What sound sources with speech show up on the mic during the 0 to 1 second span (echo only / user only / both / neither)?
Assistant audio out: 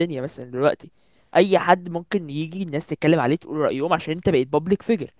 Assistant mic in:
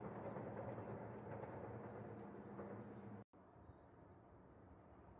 neither